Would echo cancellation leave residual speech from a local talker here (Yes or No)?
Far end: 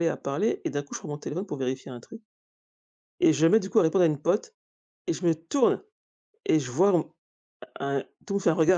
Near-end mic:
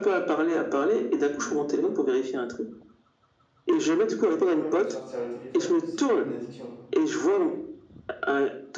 Yes